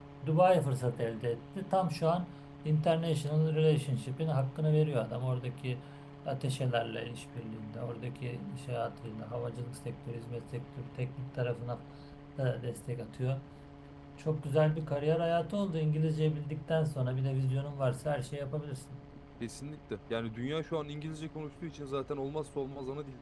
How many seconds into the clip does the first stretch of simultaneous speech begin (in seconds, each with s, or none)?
none